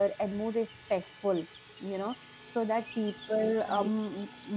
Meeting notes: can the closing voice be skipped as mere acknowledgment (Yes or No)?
Yes